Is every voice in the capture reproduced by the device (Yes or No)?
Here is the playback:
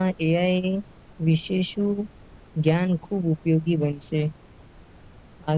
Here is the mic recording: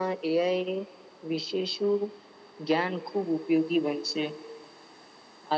Yes